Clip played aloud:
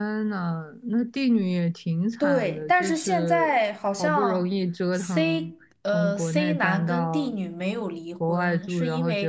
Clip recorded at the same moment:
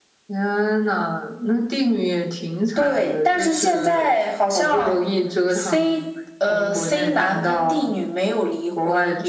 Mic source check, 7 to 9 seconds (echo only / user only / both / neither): echo only